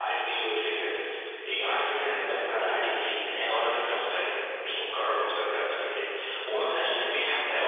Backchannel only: Yes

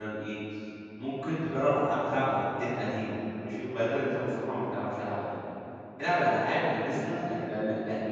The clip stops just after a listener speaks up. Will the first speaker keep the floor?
Yes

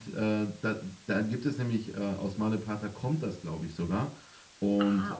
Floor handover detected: No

